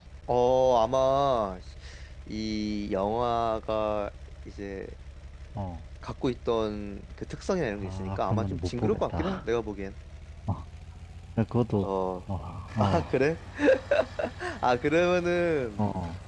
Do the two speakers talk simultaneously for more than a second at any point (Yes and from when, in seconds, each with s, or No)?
Yes, from 7.8 s